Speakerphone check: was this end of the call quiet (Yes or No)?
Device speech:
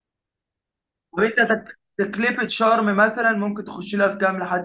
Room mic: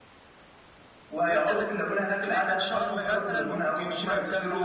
No